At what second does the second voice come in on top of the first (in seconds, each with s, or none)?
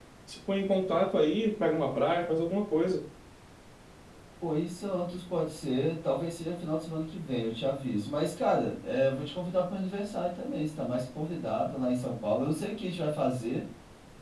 none